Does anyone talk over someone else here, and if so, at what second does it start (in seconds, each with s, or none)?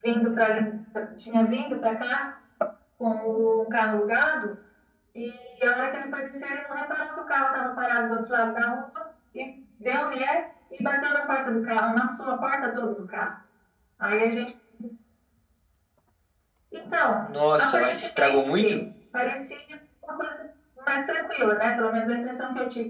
17.2 s